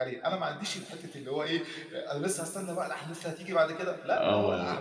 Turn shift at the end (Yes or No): Yes